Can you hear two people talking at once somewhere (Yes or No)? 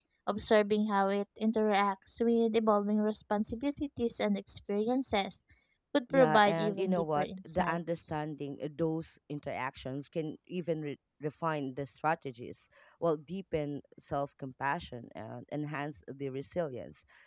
Yes